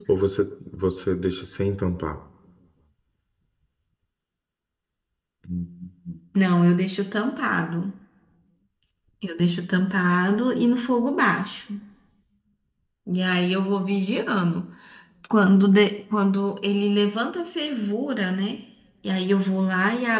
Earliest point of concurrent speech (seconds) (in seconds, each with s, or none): none